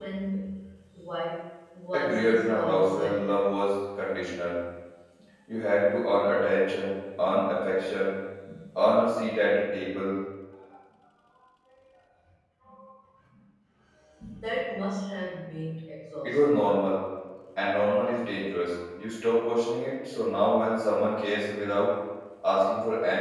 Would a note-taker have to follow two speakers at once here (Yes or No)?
Yes